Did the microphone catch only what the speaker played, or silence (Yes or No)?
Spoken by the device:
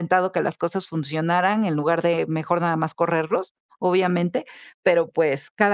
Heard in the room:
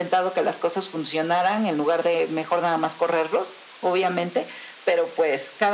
Yes